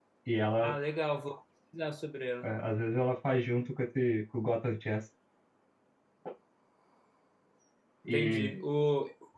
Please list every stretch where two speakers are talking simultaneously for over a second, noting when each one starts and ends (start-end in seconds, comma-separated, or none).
none